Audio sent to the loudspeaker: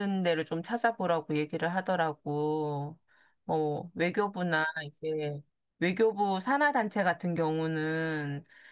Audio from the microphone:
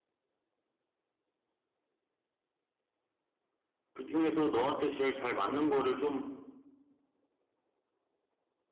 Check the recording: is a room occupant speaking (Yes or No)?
Yes